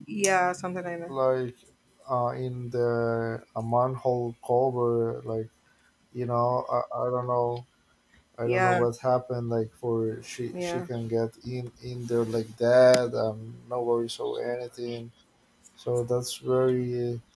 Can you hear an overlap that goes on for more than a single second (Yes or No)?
No